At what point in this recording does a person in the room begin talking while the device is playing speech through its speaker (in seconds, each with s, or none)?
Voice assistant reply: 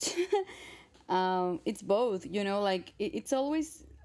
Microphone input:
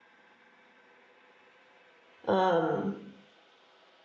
2.3 s